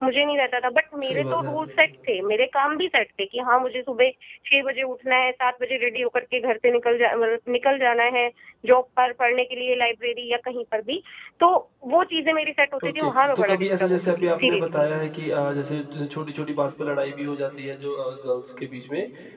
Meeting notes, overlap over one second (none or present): present